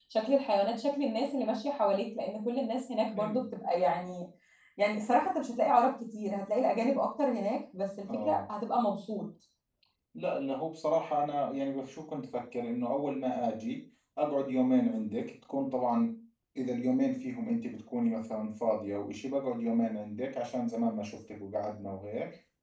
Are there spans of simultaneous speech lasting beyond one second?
No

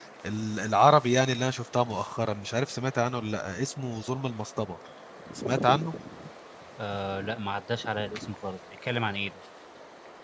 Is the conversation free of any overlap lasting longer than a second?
Yes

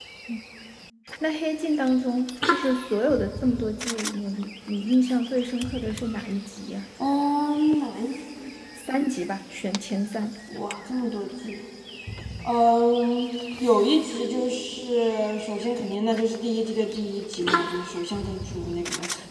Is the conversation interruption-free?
Yes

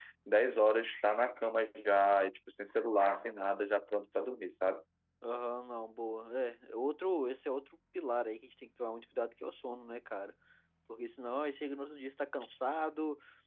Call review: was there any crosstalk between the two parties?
No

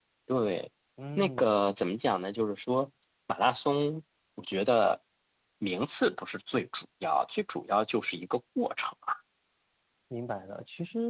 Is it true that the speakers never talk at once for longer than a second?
Yes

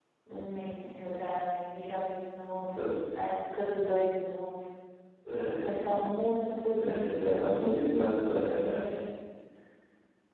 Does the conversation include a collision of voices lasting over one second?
Yes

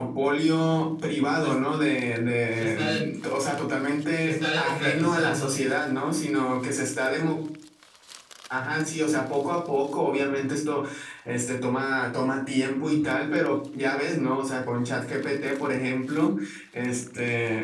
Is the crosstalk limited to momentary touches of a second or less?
No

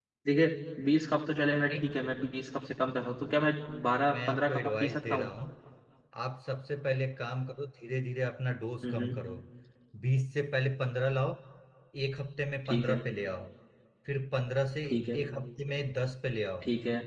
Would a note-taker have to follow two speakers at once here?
Yes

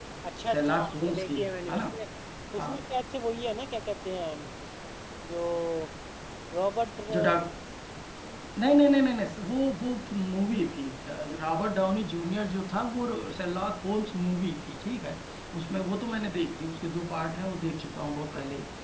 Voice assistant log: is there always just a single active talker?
No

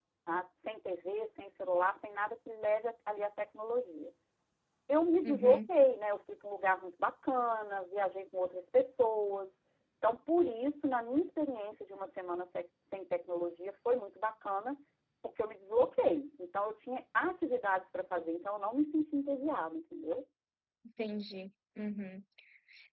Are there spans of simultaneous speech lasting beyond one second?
No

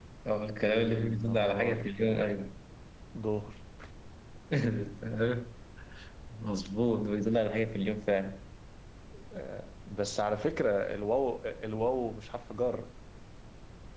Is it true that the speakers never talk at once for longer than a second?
No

